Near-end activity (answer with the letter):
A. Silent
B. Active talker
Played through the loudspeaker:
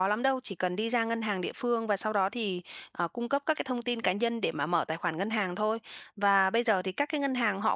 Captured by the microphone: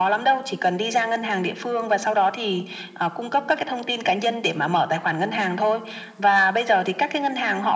A